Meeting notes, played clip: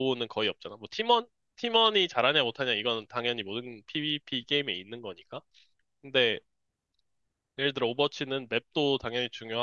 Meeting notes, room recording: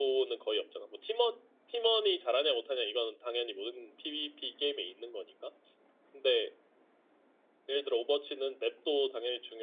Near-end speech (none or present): none